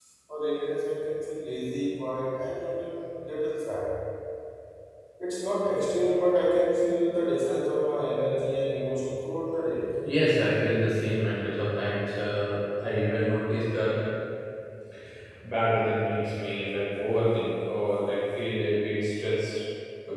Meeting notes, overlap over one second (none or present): none